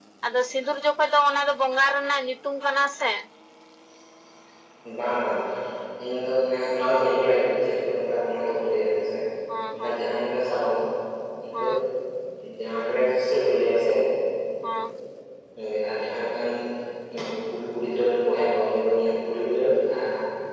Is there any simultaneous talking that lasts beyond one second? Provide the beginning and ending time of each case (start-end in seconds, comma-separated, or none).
none